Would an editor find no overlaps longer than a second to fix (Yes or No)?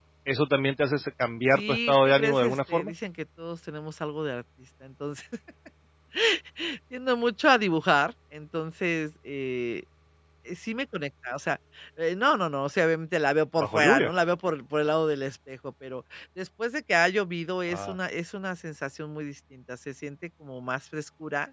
No